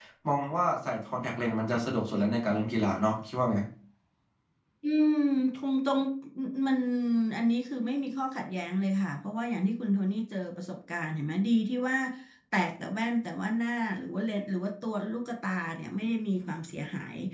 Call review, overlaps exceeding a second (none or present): none